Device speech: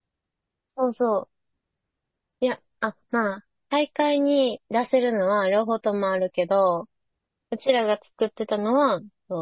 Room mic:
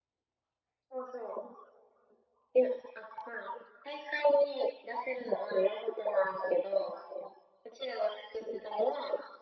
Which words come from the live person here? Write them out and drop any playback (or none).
none